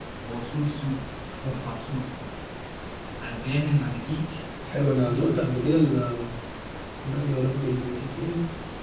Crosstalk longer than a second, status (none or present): none